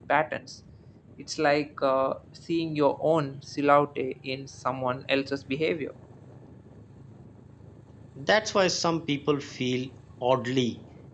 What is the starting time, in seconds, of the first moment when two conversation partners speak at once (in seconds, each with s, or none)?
none